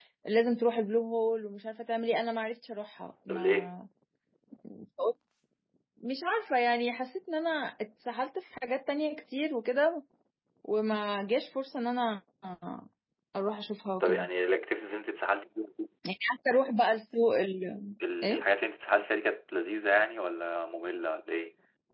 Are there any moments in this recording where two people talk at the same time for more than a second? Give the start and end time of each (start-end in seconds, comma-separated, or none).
none